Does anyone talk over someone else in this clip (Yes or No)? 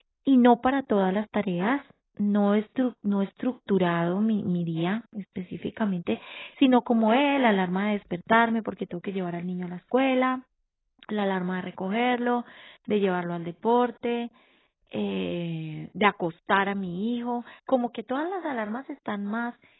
No